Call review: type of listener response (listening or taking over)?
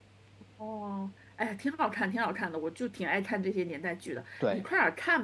listening